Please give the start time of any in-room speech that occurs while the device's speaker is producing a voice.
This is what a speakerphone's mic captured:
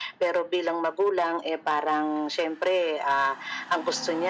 none

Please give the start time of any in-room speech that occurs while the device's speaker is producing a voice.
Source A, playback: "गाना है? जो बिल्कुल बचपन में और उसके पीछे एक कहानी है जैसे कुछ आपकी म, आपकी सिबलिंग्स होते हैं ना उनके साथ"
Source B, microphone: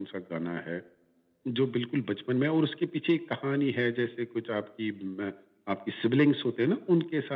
none

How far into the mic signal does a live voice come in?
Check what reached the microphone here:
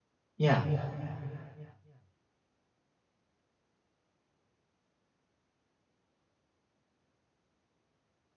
0.4 s

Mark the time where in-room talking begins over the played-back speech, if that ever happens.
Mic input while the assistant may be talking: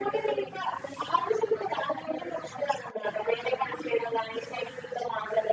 none

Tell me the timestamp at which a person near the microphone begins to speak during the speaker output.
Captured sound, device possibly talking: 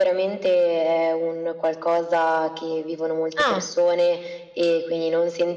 3.4 s

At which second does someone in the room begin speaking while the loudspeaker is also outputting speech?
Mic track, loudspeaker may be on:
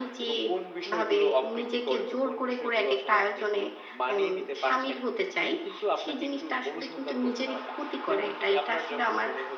none

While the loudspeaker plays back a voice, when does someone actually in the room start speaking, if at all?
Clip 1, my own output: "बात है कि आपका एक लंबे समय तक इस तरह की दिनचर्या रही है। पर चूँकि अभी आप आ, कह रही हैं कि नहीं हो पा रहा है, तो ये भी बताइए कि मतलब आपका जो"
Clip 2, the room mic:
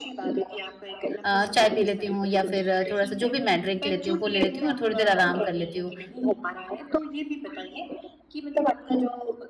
1.2 s

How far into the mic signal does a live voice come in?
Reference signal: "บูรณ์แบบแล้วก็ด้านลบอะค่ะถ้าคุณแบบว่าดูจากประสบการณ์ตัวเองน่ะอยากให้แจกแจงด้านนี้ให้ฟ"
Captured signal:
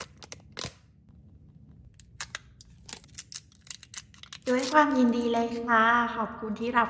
4.5 s

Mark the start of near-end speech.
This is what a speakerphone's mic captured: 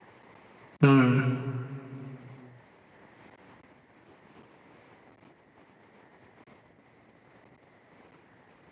0.8 s

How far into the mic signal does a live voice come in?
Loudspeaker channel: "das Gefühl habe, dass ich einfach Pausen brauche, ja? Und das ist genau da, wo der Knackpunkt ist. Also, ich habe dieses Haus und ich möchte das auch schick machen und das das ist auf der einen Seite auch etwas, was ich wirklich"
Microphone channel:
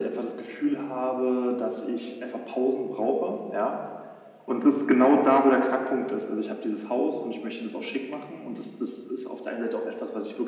none

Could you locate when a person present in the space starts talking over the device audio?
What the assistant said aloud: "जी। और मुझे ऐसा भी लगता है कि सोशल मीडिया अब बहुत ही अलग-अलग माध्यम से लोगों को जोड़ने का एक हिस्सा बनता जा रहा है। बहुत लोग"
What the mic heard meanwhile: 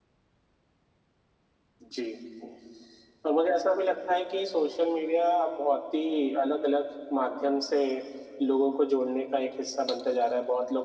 none

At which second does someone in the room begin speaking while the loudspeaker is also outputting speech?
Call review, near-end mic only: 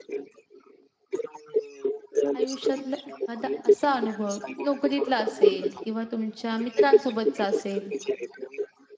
2.4 s

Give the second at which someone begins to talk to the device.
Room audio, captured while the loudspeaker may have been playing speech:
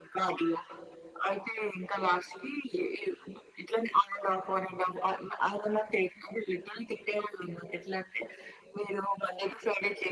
none

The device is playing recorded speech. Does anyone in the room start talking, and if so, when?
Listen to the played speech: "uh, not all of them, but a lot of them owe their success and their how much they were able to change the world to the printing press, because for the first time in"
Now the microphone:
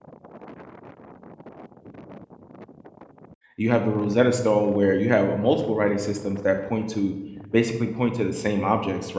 3.6 s

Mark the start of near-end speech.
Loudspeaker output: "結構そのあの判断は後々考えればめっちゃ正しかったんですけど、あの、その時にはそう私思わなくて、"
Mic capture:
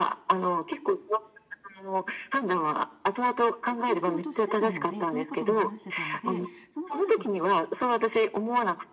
3.8 s

